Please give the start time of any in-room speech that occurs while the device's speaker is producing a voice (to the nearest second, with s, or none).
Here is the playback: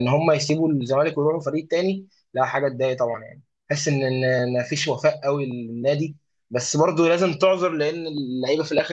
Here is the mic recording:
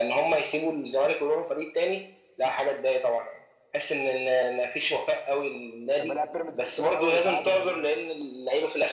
6 s